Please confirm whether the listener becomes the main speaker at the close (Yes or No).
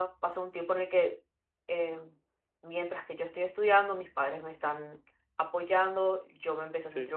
No